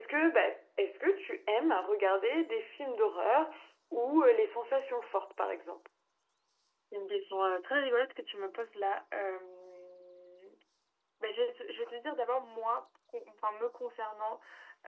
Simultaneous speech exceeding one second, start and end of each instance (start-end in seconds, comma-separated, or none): none